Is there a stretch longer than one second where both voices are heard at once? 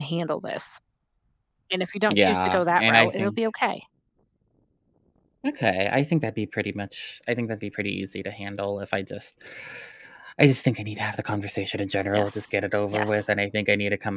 Yes, from 2.1 s

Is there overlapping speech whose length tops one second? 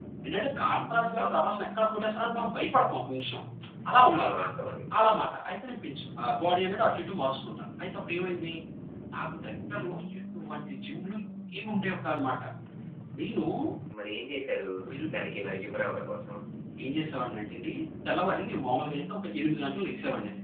No

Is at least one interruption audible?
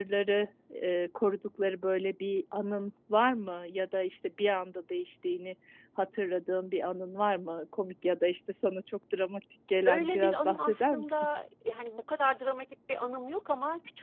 Yes, from 9.8 s

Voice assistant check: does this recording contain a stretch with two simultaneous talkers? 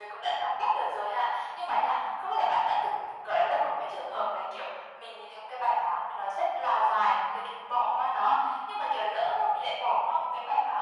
No

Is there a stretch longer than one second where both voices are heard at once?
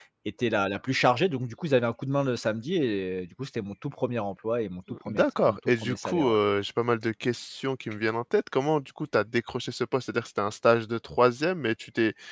Yes, from 4.9 s

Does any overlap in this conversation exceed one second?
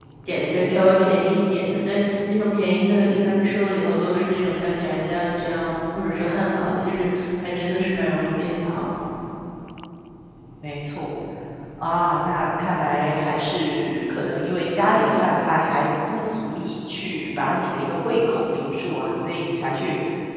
No

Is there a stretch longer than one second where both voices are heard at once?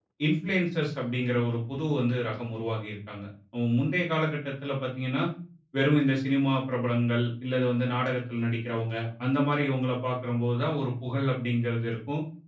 No

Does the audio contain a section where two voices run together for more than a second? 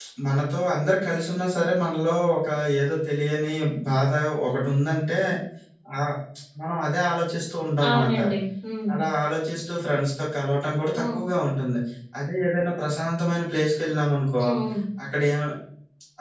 No

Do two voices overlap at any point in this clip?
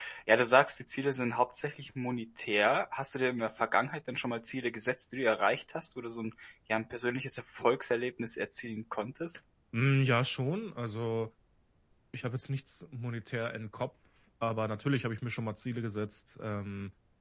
No

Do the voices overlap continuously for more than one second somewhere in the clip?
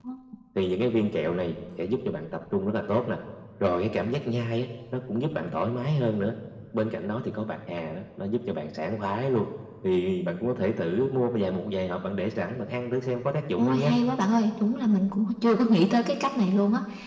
No

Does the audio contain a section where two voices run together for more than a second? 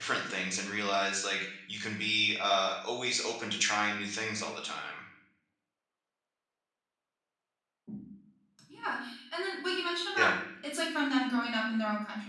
No

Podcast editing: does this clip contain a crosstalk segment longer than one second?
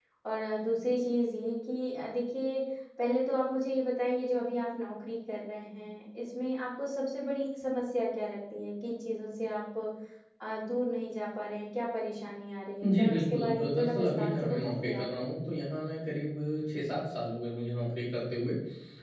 Yes, from 12.8 s

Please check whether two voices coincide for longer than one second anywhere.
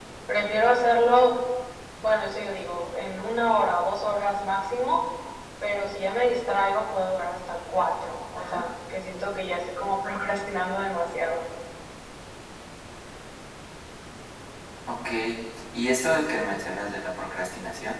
No

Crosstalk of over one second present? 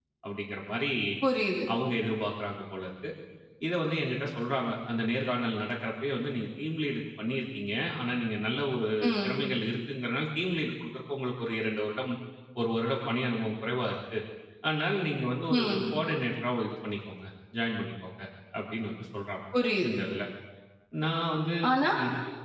No

